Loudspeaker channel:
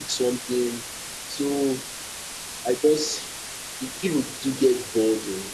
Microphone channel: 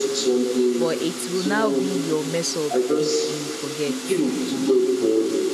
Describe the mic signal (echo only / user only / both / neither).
both